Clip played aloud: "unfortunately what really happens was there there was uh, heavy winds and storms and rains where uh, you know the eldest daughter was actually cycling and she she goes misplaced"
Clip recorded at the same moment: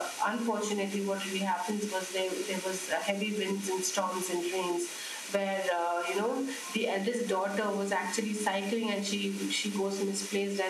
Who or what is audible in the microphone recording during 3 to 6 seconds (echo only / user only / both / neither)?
echo only